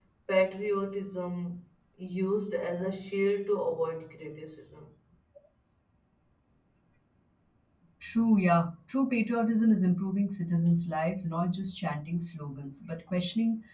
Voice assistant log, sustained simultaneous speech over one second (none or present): none